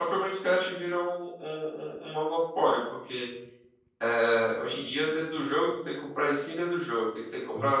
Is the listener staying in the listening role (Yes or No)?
Yes